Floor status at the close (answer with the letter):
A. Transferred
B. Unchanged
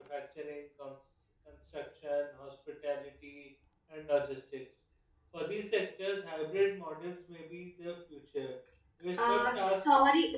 A